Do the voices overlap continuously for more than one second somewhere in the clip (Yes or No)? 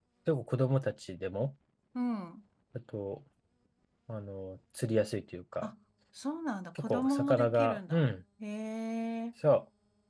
Yes